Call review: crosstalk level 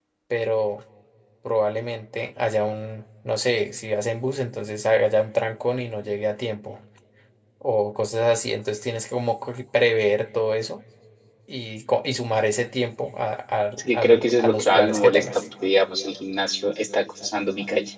present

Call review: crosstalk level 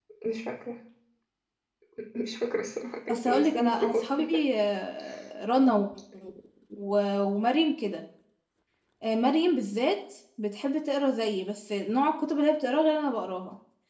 present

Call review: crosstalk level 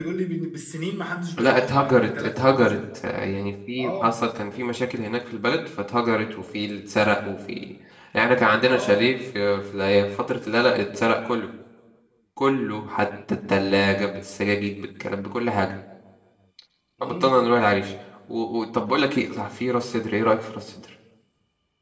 present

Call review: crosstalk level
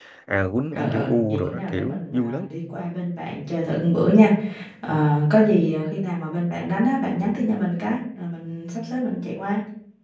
present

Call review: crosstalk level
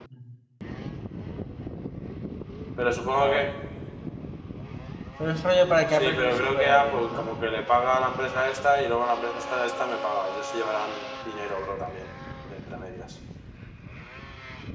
present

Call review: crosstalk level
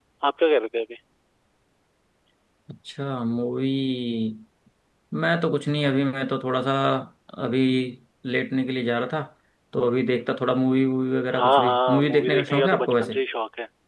present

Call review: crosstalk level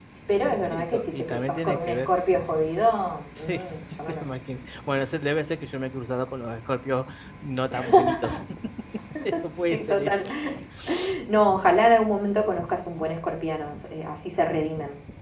present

